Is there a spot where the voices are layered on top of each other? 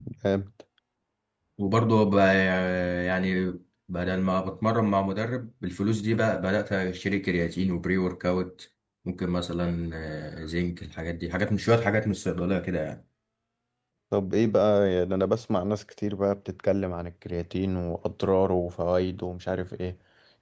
No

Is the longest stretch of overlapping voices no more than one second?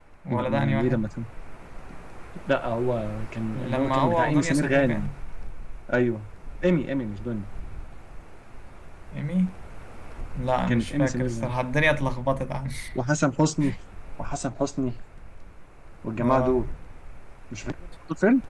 No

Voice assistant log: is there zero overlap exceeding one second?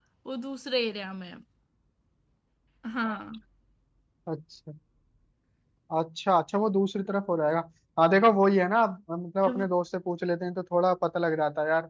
Yes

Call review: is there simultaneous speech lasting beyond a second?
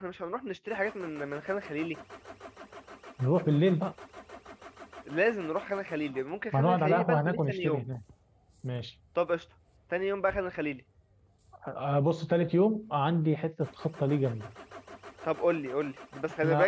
Yes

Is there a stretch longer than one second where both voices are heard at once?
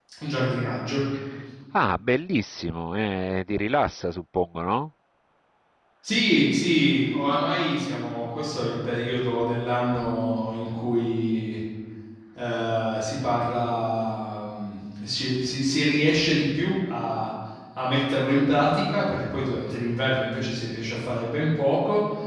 No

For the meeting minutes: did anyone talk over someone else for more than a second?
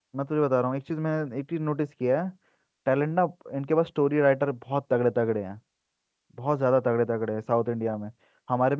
No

